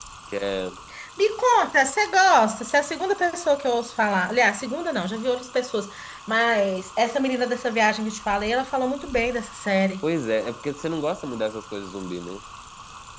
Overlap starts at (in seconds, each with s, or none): none